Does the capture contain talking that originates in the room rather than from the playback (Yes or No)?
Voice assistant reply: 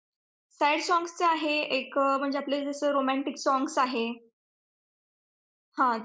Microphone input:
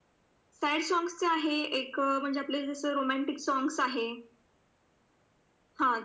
No